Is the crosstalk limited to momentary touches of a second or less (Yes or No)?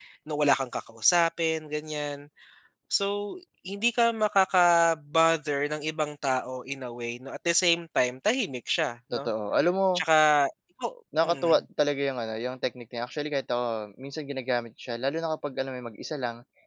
Yes